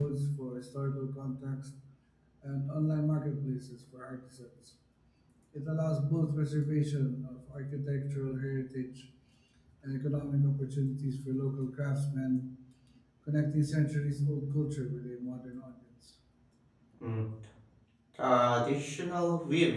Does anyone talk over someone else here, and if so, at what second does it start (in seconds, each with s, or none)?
none